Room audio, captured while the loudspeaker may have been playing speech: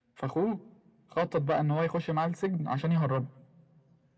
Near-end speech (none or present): none